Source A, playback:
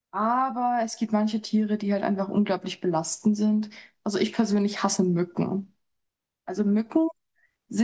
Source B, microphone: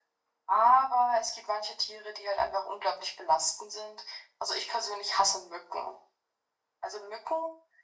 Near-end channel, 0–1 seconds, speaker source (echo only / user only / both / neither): echo only